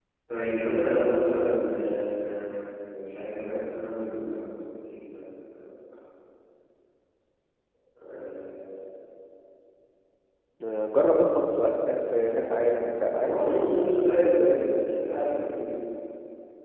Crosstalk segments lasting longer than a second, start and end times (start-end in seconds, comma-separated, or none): 13.2-14.8